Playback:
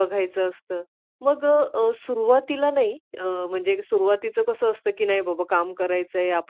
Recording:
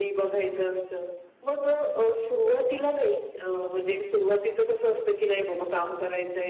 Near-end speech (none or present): none